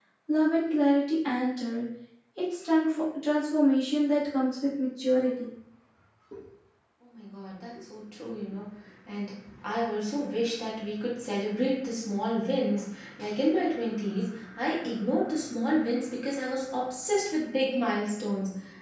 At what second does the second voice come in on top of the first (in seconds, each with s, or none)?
none